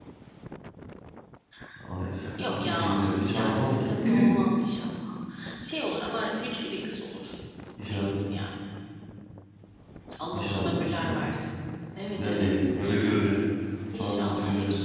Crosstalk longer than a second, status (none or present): present